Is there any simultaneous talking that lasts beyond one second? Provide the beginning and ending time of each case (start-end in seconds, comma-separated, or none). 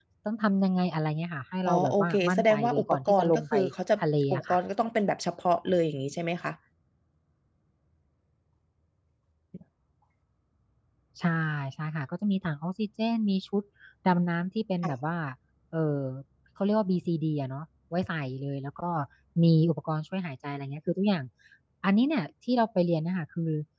1.7-3.5